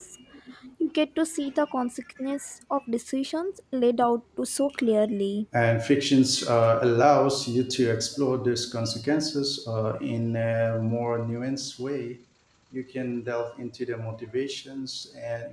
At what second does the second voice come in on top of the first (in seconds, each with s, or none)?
none